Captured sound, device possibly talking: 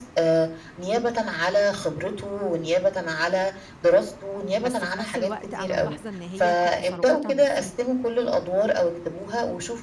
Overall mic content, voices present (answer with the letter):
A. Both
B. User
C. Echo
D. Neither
A